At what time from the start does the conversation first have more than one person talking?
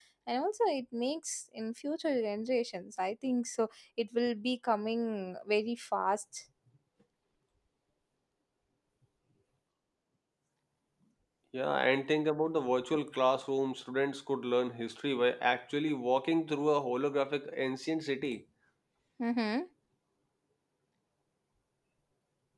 none

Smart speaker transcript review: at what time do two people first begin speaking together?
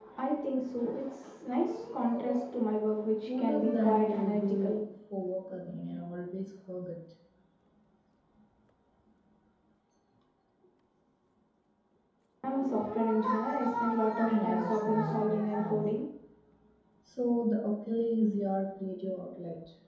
3.3 s

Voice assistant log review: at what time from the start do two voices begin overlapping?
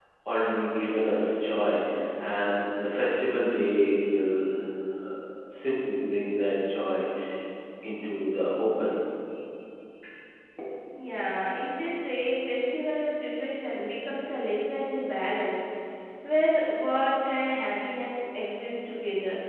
none

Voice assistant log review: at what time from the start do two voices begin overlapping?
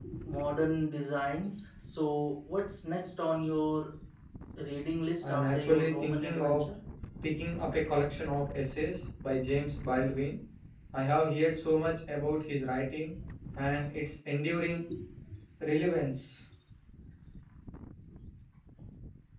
5.2 s

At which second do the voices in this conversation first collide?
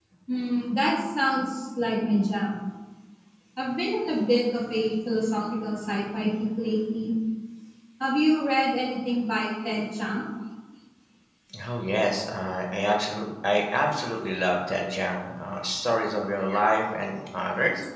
none

